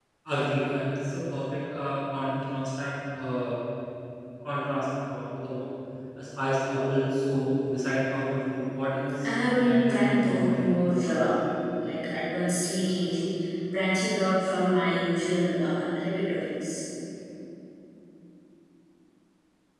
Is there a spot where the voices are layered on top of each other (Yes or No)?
Yes